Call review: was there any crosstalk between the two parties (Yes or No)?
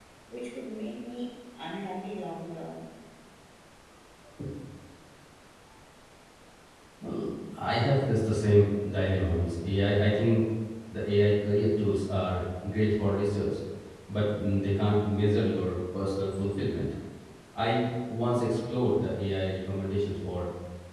No